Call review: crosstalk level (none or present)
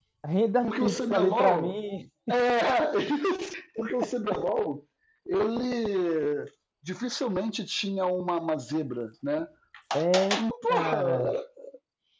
present